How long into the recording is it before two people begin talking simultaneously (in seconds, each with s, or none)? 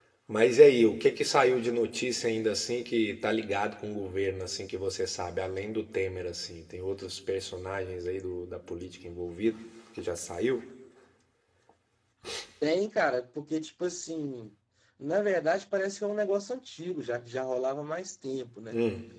none